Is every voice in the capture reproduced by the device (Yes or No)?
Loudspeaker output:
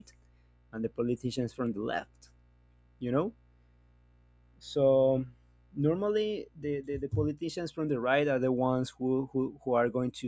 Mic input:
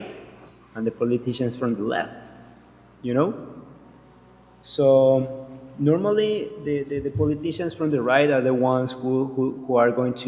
Yes